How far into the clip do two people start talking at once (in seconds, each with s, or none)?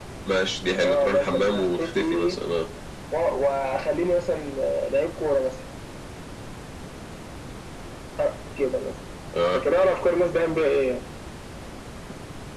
0.8 s